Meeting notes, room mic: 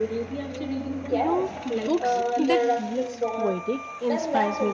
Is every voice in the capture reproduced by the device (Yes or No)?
No